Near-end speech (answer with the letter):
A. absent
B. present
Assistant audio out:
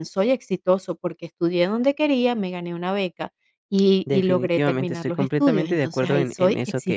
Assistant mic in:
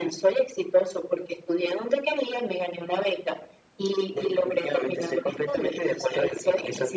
A